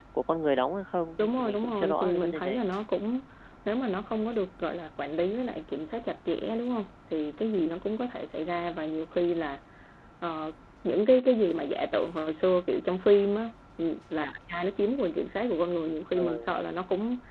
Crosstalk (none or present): present